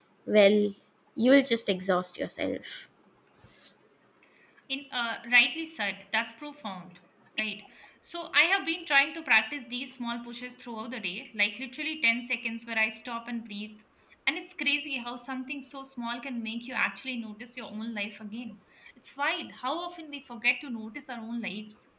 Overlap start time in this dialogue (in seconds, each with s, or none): none